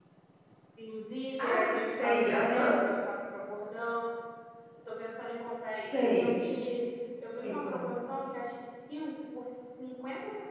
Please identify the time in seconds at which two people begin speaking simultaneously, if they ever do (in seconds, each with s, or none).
1.4 s